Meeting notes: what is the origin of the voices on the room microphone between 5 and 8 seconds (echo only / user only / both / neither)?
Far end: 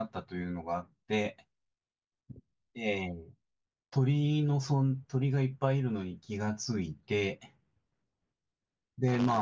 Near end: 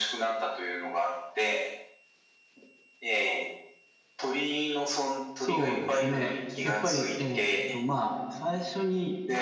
both